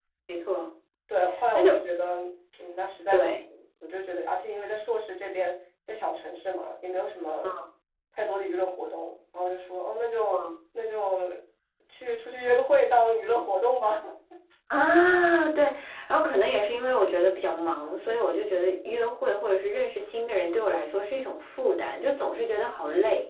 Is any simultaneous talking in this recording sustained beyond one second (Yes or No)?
No